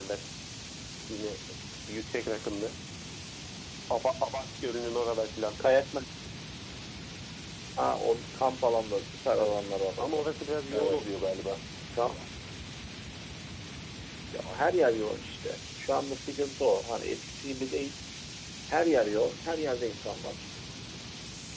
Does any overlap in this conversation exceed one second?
No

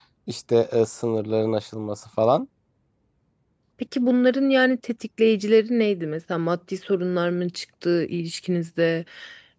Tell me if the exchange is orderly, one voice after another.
Yes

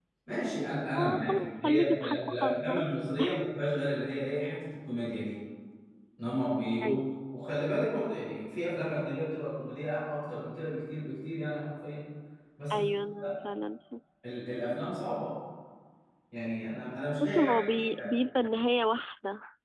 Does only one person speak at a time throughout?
No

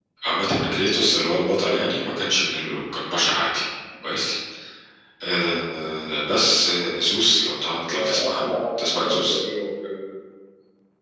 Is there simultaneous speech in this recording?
Yes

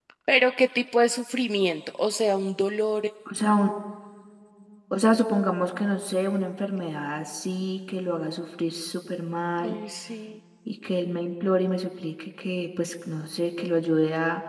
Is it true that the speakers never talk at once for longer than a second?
Yes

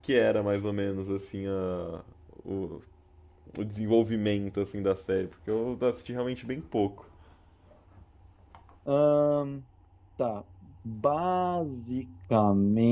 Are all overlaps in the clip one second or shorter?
Yes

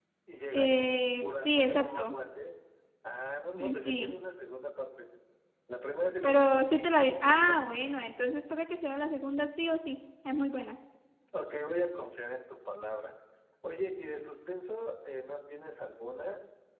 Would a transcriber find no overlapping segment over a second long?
No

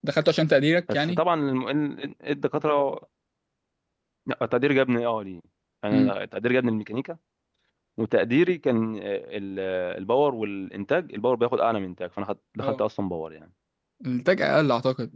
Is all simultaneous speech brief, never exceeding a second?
Yes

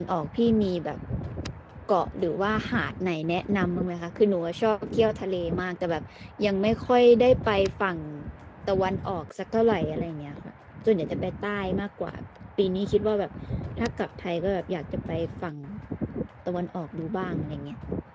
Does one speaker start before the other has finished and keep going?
No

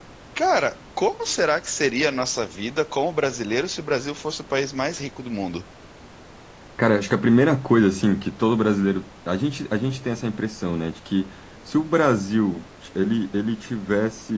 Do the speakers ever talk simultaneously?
No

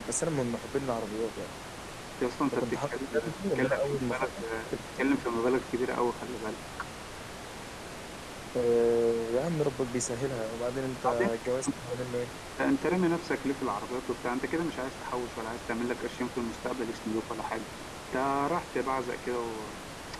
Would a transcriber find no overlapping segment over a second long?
No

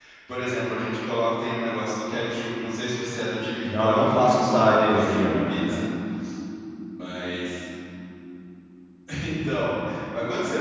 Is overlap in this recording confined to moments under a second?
No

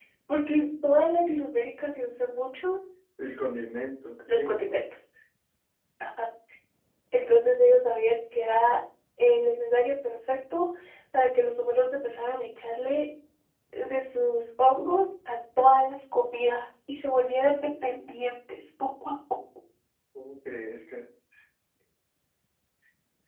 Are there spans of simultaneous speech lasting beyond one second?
No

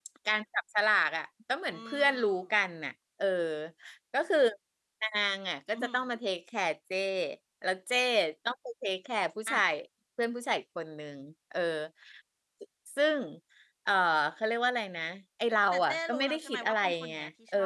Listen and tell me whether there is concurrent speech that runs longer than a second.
Yes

